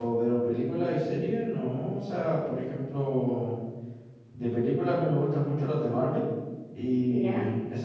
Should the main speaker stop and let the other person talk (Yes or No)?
No